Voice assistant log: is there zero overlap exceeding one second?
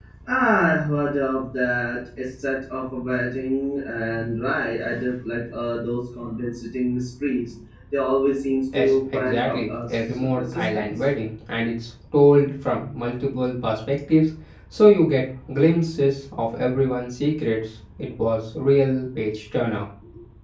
No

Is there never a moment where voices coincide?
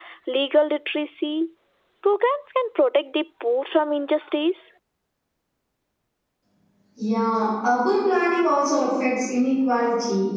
Yes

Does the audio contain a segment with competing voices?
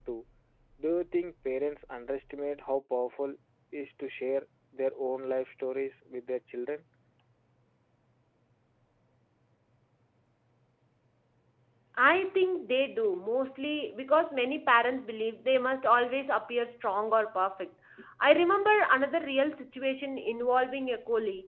No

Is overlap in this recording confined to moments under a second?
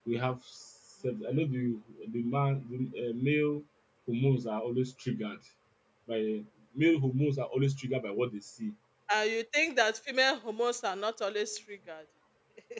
Yes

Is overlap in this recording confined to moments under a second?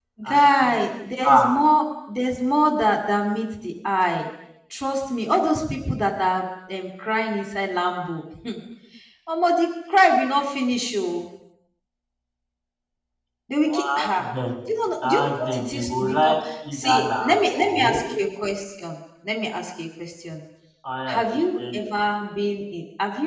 No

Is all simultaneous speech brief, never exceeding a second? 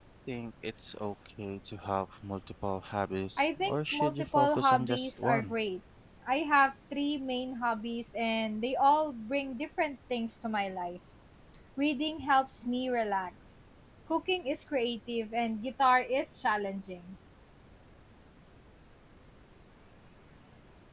No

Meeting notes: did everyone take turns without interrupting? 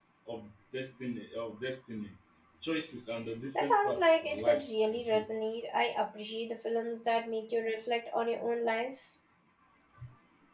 No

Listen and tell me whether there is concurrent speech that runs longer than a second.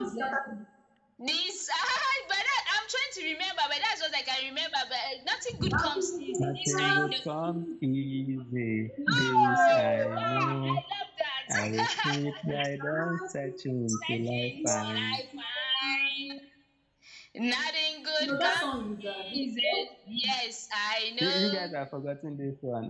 Yes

